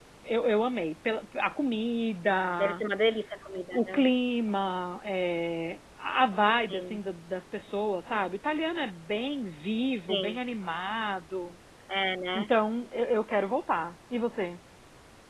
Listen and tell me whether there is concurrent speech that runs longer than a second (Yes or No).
No